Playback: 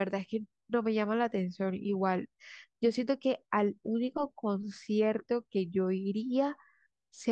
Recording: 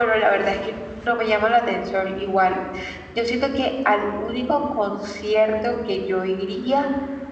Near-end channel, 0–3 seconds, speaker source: echo only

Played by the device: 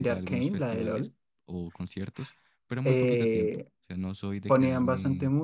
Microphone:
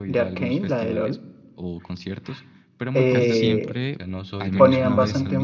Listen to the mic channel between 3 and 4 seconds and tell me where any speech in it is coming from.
both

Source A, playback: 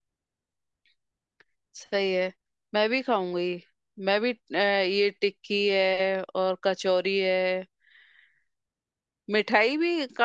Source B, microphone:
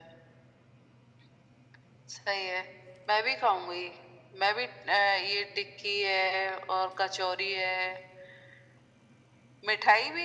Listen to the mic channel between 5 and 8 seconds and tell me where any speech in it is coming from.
echo only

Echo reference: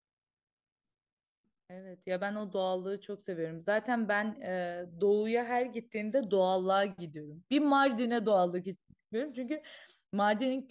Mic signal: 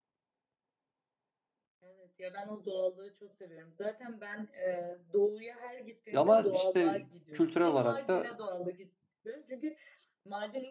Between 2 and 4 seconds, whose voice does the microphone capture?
echo only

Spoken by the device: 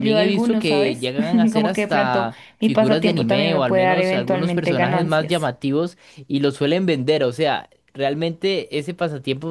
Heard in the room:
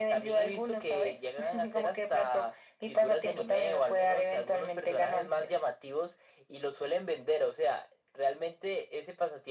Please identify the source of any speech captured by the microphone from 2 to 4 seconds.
echo only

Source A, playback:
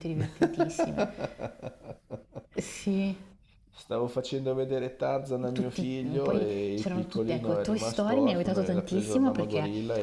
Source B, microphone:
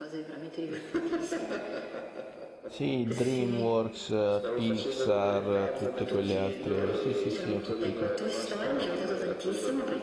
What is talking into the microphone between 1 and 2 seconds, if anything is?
echo only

